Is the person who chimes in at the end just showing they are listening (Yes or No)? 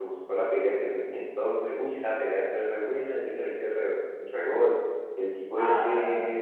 Yes